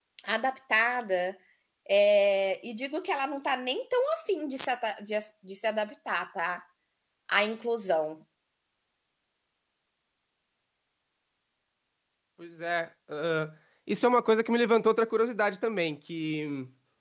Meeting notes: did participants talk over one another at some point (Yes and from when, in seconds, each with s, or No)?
No